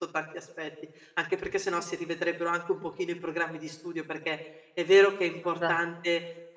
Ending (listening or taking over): listening